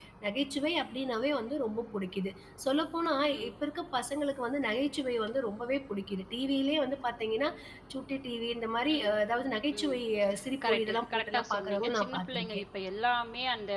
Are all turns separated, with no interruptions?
No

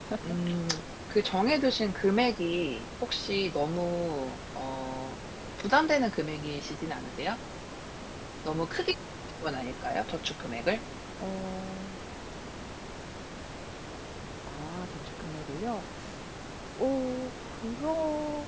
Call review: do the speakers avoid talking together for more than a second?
Yes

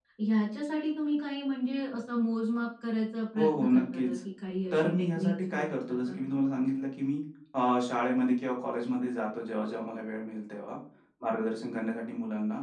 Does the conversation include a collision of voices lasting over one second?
Yes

